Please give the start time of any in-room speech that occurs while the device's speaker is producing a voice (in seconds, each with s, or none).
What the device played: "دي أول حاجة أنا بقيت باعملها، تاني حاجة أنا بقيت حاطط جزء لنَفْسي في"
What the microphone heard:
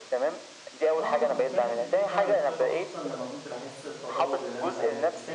1.0 s